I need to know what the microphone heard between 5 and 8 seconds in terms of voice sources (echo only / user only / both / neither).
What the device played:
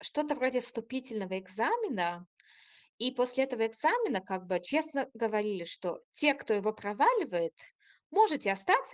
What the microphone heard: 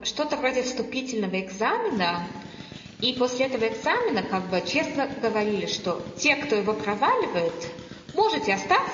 echo only